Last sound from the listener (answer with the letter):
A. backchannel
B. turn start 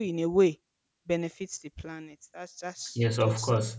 B